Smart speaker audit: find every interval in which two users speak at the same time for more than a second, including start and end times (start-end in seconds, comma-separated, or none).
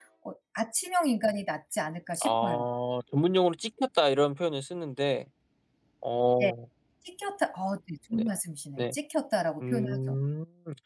none